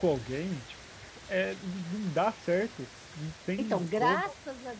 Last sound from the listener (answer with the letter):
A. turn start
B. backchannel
A